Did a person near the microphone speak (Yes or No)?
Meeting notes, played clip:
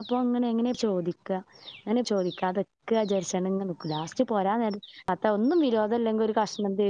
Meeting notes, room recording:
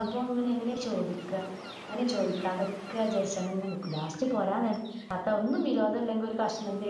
No